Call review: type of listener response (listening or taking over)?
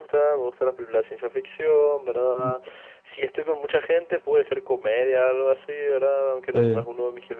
listening